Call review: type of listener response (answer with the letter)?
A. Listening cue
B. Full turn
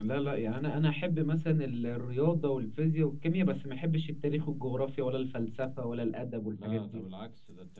B